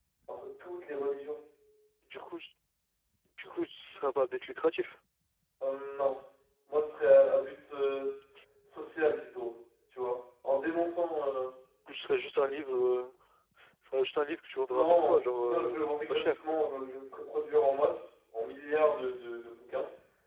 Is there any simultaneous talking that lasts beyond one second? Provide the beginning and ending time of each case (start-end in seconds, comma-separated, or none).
14.7-16.6